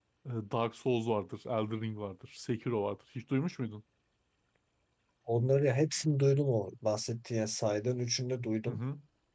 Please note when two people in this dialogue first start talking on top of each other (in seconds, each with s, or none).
none